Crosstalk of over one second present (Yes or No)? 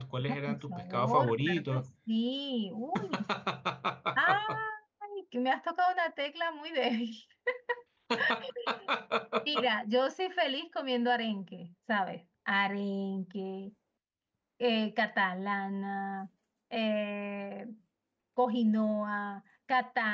Yes